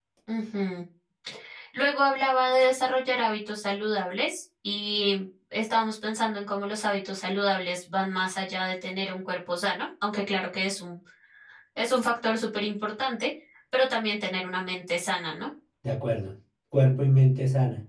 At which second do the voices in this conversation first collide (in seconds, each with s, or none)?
none